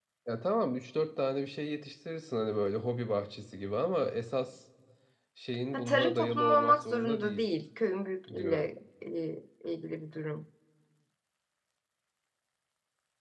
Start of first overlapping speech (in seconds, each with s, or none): 5.7 s